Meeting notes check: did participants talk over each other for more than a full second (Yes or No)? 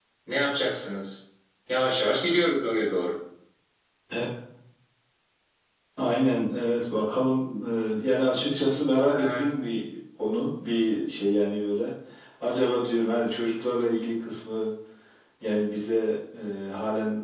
No